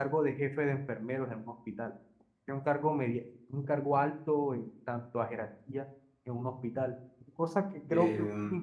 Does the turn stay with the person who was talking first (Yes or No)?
Yes